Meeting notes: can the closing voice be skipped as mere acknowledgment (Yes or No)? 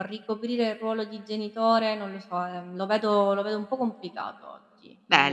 No